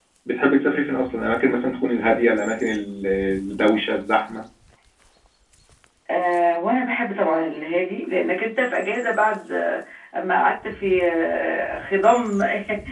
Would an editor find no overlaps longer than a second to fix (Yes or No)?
Yes